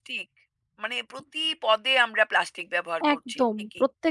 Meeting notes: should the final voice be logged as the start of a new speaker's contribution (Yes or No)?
Yes